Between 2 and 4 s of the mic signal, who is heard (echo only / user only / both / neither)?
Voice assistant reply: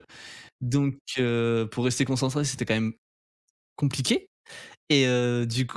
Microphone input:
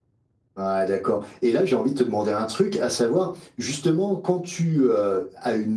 user only